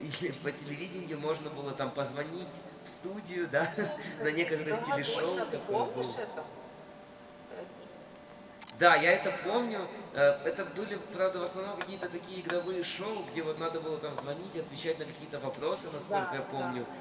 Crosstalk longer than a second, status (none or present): present